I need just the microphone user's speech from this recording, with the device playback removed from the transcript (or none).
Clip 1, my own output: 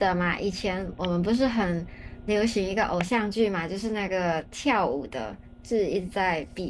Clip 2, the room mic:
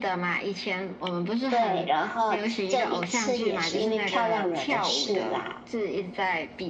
对，然后这一次也是因为漂亮惹的事啦，